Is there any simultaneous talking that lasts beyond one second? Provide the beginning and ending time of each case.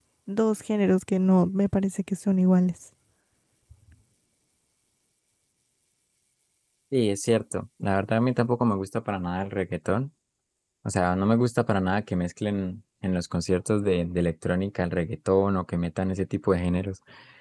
none

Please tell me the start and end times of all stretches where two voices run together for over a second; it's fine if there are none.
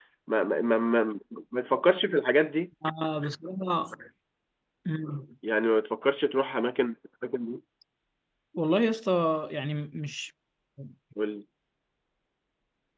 none

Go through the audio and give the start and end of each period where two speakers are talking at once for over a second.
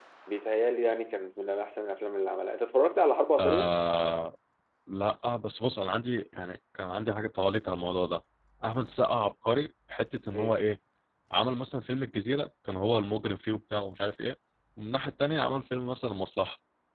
none

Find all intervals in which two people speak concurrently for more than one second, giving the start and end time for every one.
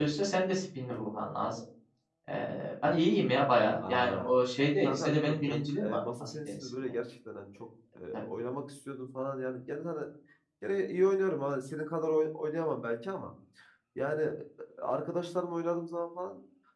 4.8-6.7

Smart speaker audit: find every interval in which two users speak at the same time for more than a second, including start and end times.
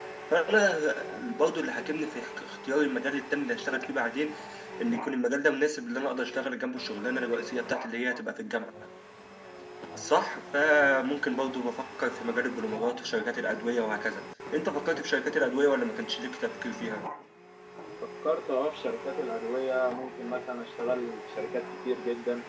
none

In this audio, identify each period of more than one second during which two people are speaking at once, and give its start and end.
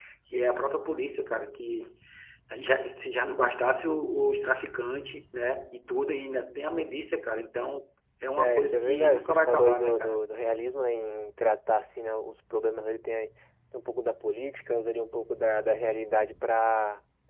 8.4-10.2

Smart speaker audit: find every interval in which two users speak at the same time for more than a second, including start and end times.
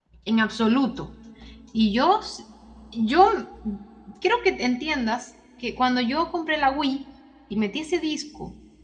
none

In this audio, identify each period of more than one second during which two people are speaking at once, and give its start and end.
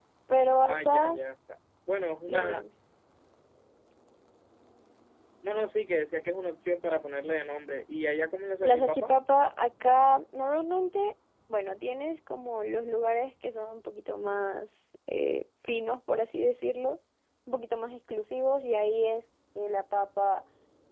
none

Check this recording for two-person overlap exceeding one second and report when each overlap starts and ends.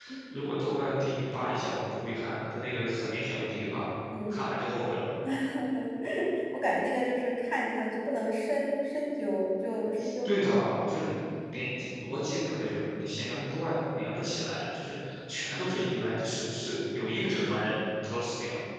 none

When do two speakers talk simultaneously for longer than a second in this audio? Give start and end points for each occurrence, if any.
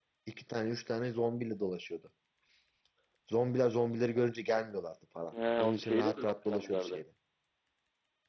5.6-7.0

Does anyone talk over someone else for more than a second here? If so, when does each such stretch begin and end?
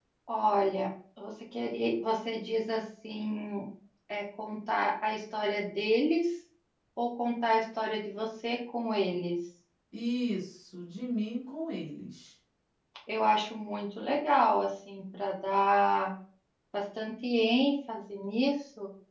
none

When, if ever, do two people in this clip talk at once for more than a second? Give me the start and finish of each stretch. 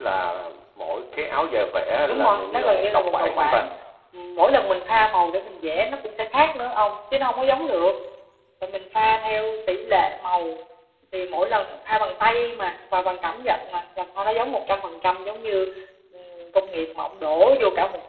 2.1-3.7

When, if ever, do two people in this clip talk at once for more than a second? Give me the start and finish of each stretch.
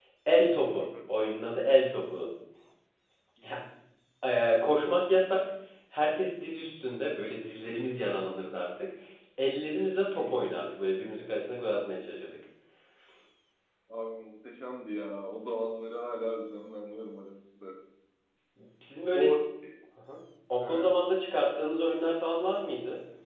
none

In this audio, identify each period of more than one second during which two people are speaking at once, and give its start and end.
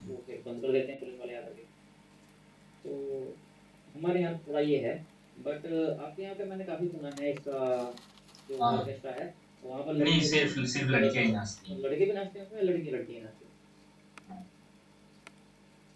none

